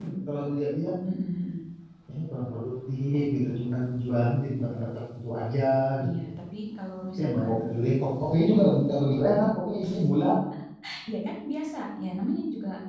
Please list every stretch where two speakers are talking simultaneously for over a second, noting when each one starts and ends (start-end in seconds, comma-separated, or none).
none